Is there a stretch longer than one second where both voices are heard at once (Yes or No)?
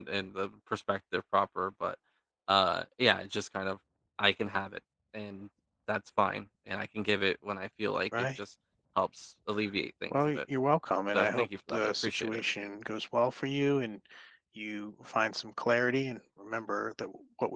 Yes